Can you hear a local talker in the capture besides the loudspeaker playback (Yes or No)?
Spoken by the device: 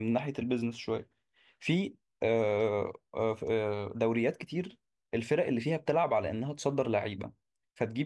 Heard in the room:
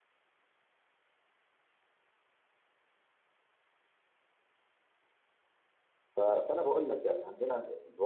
Yes